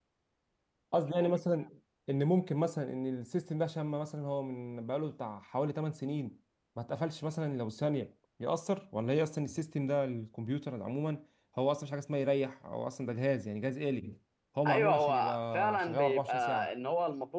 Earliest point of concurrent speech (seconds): 14.7 s

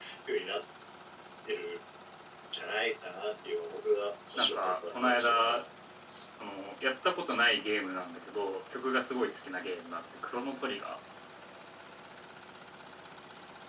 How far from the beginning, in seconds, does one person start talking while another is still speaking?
4.4 s

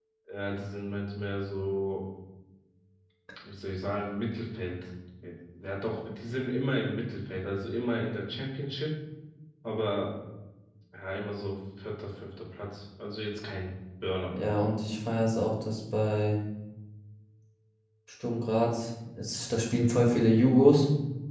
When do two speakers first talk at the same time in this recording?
none

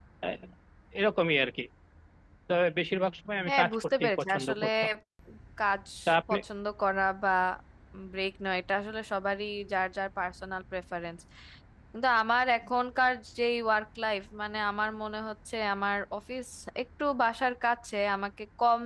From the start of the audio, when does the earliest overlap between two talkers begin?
3.5 s

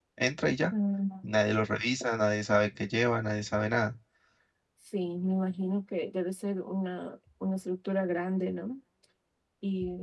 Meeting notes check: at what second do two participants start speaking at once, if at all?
none

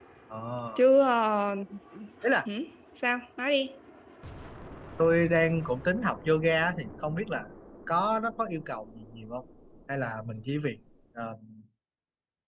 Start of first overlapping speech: none

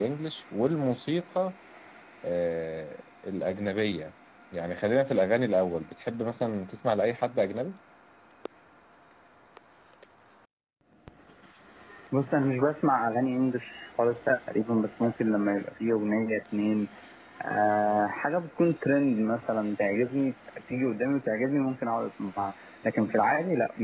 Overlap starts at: none

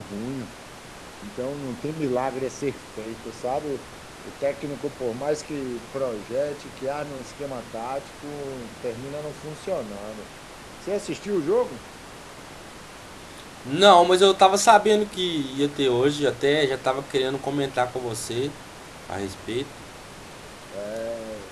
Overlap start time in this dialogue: none

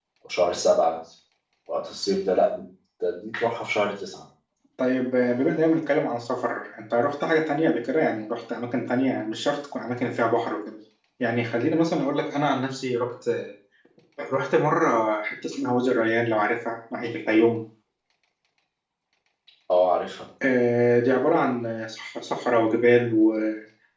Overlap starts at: none

